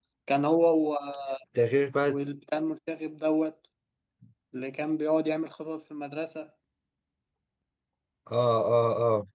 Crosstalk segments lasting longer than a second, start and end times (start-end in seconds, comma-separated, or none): none